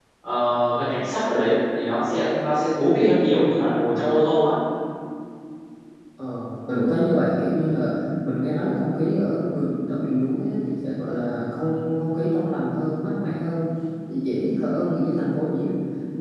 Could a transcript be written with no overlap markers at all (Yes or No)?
Yes